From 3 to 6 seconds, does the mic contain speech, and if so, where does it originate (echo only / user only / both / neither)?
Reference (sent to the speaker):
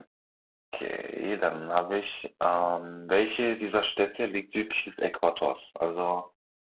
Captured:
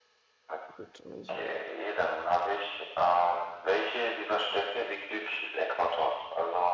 echo only